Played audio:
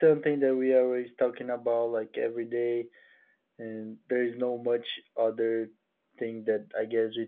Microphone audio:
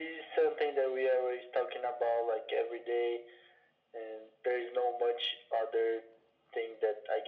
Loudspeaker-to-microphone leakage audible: Yes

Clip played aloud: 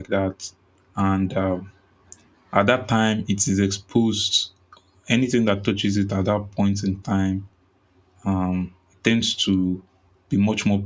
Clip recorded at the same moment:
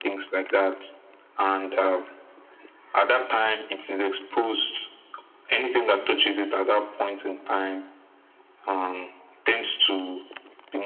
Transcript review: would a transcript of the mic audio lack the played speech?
No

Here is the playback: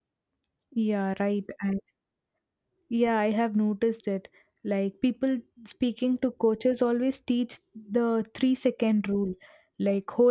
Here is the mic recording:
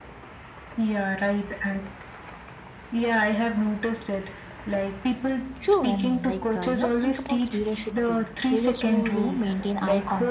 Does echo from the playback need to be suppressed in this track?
Yes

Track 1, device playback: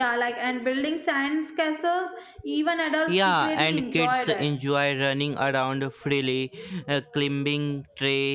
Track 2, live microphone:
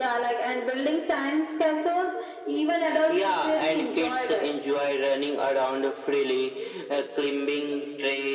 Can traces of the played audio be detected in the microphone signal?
Yes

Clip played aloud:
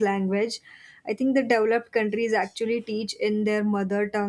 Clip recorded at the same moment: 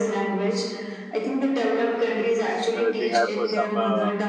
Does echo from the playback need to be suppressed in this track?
Yes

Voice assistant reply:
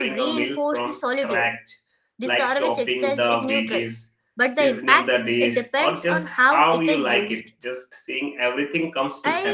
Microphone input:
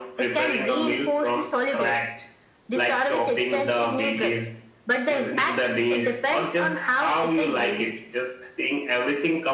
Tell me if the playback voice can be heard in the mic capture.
Yes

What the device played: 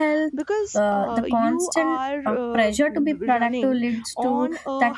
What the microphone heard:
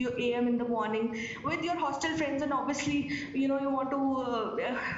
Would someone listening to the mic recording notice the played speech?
No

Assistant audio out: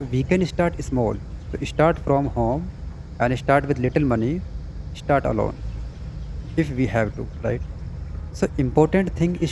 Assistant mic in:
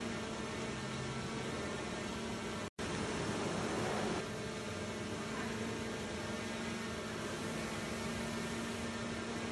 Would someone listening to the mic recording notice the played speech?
No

